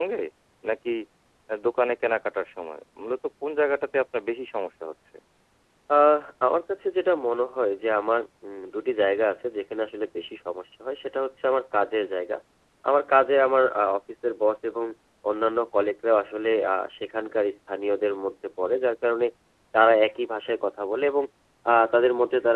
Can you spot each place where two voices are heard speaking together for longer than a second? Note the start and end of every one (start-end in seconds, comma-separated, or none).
none